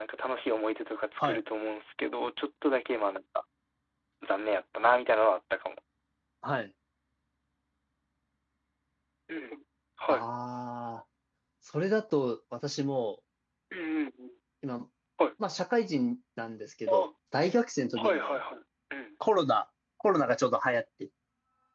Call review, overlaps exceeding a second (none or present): none